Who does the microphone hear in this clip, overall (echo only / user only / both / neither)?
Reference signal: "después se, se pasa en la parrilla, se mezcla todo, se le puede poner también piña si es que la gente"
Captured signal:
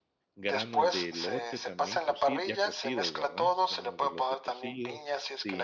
both